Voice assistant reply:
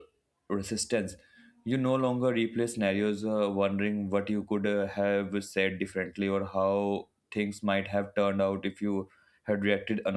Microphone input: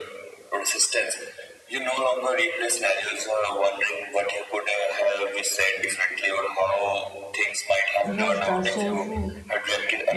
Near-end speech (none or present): present